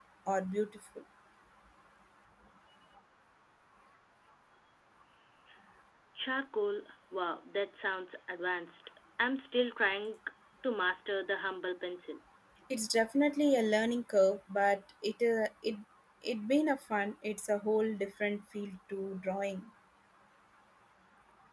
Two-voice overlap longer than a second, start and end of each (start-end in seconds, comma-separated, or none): none